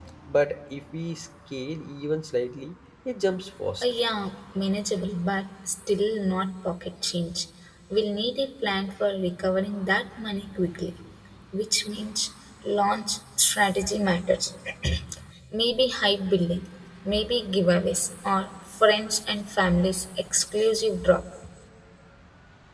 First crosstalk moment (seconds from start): none

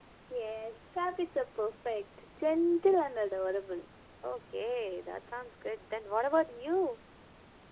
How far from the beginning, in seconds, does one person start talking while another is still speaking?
none

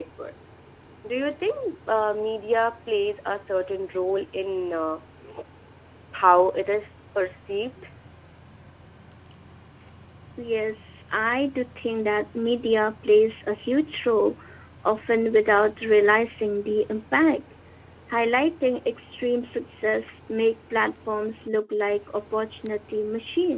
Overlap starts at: none

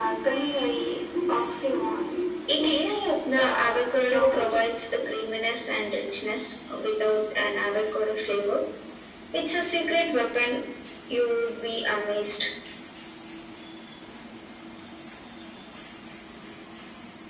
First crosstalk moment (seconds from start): 2.5 s

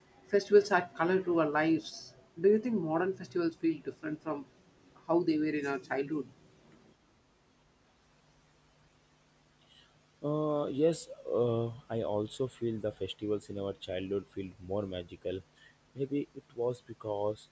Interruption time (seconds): none

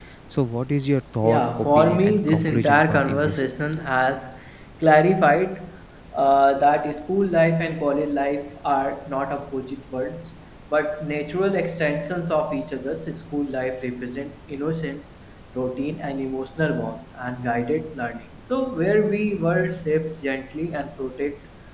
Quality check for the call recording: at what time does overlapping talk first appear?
1.2 s

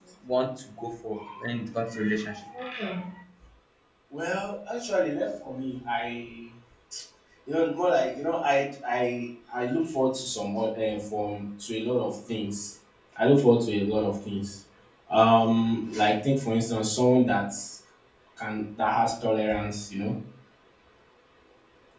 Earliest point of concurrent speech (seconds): none

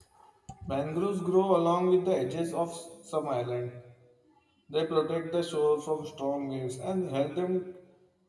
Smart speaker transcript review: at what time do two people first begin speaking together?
none

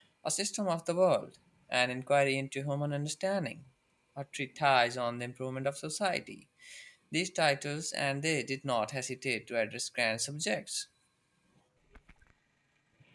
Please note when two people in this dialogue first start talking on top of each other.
none

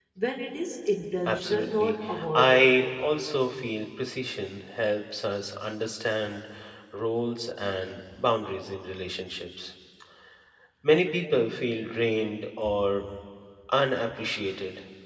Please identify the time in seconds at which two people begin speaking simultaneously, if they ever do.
1.3 s

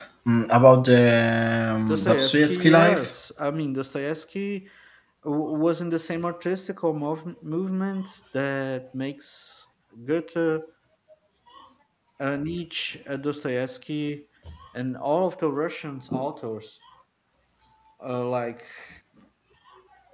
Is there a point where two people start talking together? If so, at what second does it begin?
1.9 s

